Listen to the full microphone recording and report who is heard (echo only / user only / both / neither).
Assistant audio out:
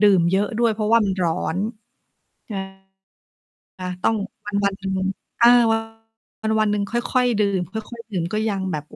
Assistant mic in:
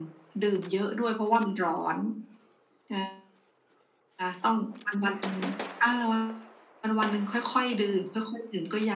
echo only